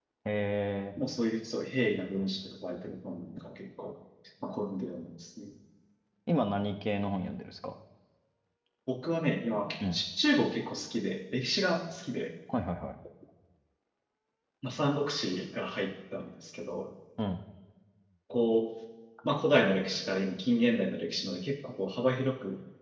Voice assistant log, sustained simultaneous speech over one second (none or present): none